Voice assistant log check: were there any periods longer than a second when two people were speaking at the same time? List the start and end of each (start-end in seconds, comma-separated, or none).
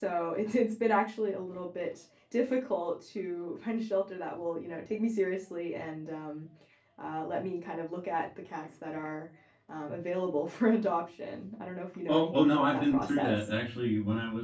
12.1-13.3